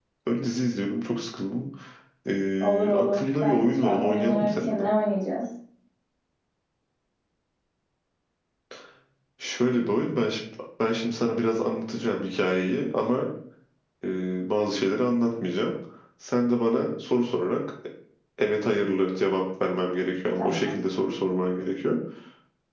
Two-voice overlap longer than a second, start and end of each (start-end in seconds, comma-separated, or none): 2.6-4.8